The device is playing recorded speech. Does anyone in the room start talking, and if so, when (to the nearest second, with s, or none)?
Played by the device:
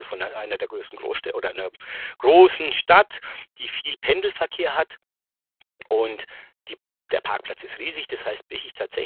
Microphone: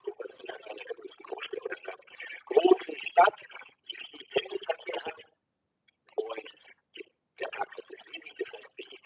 none